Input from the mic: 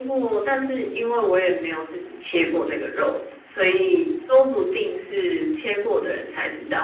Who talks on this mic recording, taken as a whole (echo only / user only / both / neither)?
echo only